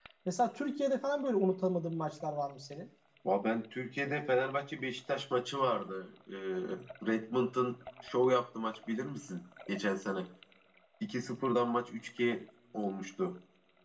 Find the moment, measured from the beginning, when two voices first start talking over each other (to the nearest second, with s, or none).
none